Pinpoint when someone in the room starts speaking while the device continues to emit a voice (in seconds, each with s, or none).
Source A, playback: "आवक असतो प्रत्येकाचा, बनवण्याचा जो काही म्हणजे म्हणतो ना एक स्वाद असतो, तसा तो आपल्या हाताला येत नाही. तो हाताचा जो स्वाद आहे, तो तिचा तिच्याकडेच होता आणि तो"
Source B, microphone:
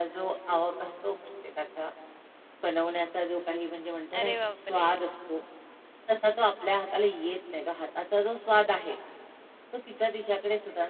4.2 s